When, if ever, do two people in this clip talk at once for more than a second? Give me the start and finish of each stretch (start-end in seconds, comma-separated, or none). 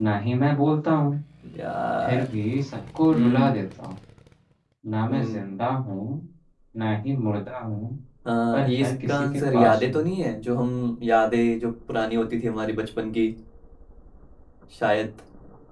8.5-10.0